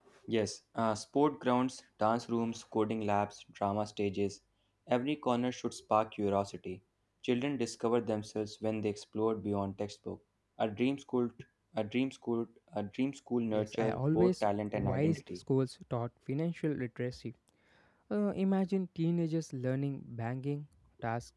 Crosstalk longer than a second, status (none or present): present